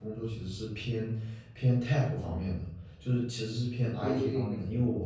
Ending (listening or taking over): listening